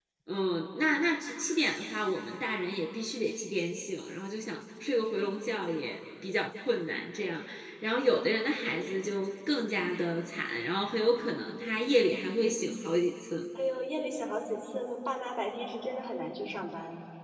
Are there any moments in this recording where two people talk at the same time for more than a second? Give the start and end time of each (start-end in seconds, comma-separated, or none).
none